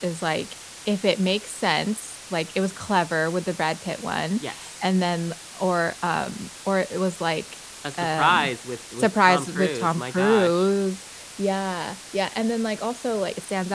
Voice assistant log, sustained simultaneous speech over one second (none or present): present